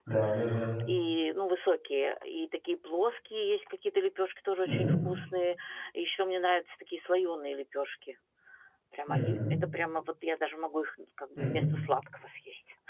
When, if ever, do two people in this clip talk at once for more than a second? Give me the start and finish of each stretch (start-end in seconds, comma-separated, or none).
none